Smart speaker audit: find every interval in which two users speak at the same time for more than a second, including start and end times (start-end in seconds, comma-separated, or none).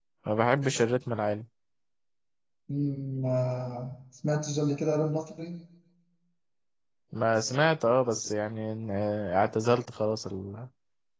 none